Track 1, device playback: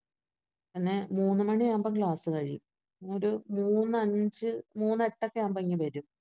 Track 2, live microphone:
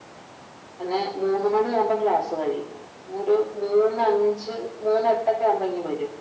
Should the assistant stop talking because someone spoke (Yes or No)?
No